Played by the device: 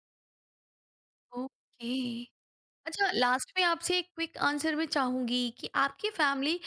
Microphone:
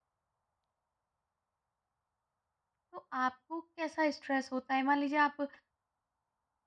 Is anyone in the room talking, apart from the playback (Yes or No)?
Yes